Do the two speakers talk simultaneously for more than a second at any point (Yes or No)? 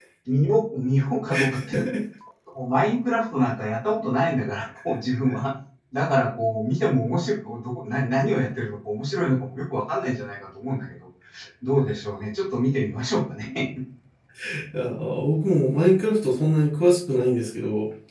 No